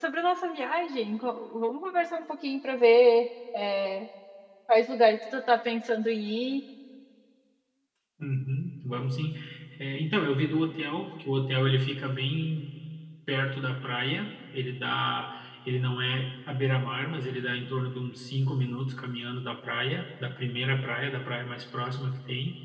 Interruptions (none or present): none